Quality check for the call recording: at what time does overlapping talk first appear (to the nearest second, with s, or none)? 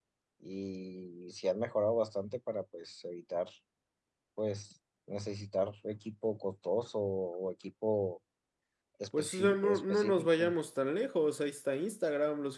9 s